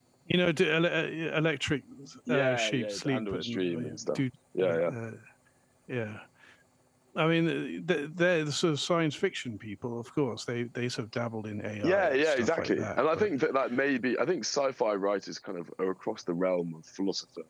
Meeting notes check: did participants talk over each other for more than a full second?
Yes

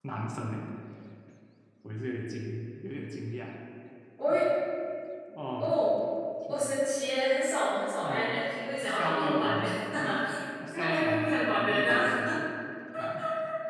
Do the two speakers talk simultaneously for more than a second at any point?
Yes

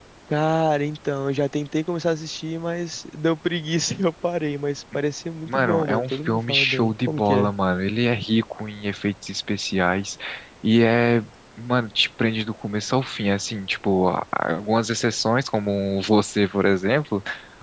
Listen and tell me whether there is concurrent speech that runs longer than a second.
Yes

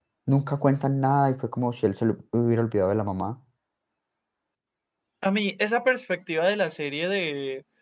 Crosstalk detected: No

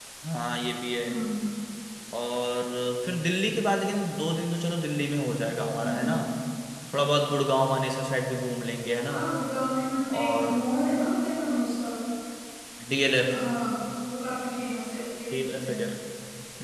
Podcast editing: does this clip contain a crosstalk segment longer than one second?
No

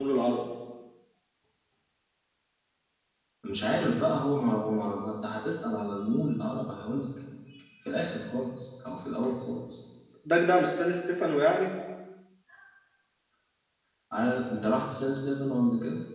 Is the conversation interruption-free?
Yes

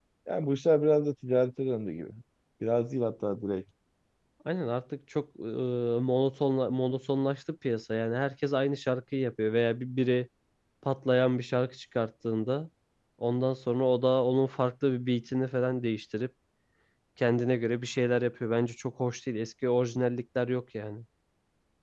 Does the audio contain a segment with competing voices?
No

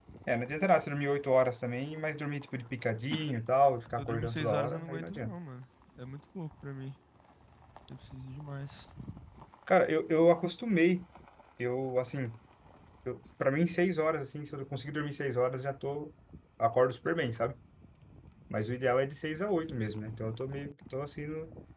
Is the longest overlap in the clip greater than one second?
Yes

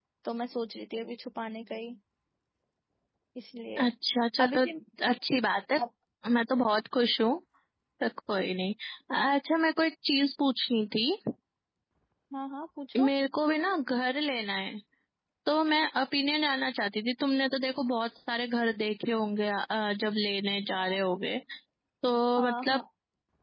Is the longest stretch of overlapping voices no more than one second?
Yes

